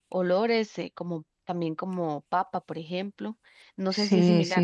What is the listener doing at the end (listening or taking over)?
taking over